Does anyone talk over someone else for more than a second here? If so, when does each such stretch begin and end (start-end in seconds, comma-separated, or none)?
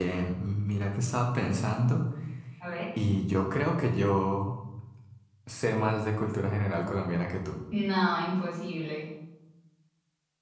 none